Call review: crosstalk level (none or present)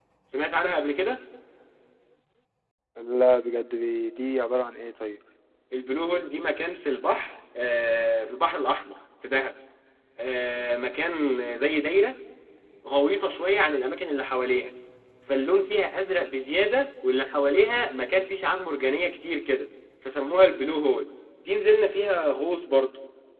none